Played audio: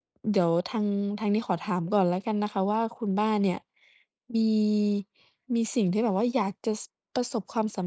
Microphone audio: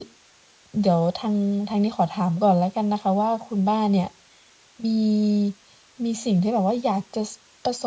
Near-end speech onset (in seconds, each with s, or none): none